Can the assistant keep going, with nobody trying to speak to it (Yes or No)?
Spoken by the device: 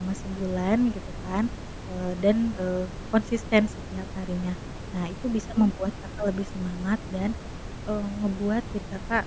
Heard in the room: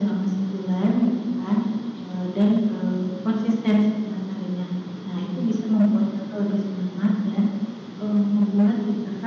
Yes